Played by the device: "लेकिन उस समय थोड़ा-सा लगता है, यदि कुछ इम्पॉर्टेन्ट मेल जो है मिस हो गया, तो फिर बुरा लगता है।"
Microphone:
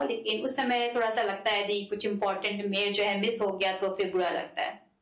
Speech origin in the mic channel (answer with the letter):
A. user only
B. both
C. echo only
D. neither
C